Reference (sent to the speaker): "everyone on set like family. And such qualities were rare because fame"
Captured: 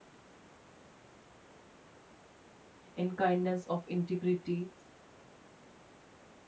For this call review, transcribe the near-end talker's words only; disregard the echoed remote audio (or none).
in kindness of integrity.